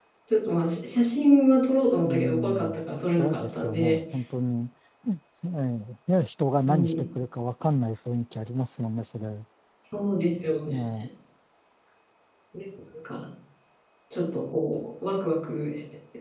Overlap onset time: 2.0 s

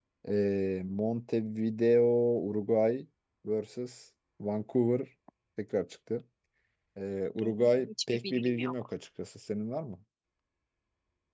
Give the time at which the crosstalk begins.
7.4 s

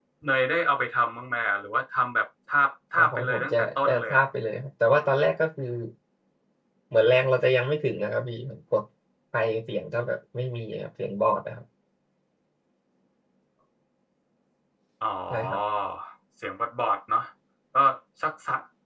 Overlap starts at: 3.0 s

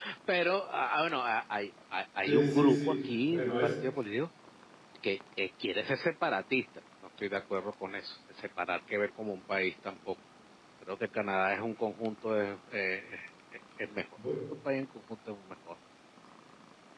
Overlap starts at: 2.2 s

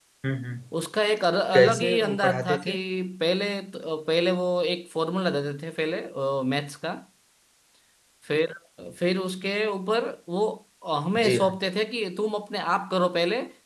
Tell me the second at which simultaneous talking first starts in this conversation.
1.5 s

